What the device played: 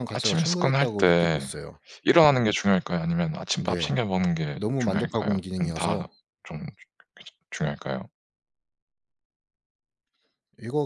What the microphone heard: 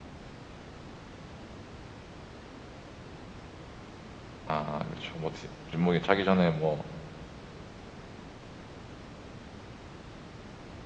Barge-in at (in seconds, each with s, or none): 4.5 s